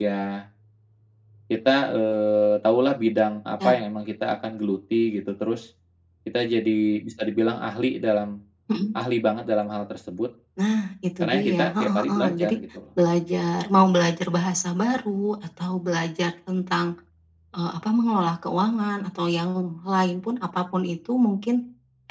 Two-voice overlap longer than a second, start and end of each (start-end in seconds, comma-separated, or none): 11.2-12.5